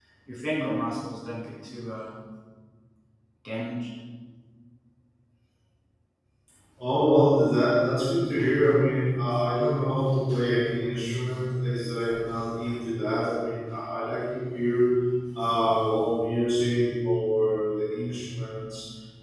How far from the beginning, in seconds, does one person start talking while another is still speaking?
none

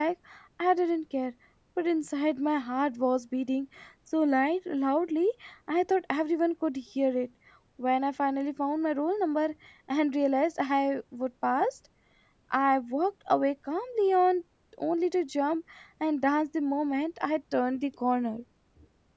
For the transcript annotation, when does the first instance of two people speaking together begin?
none

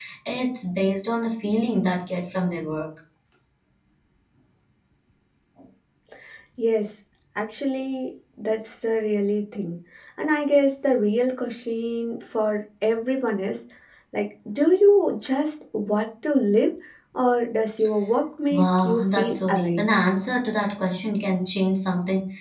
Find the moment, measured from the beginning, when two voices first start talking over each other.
18.5 s

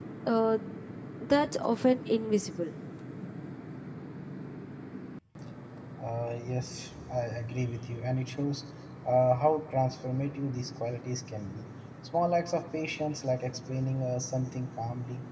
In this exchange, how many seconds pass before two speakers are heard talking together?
none

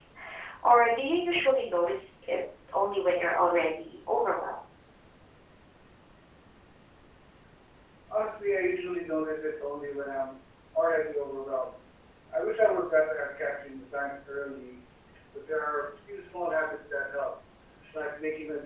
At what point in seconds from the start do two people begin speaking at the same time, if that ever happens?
none

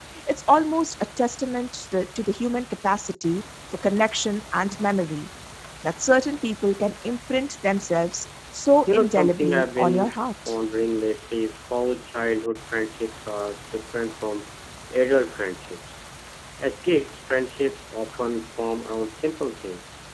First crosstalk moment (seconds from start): 8.9 s

